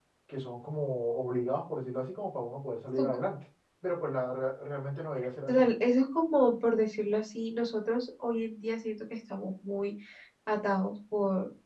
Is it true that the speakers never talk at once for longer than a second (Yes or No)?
Yes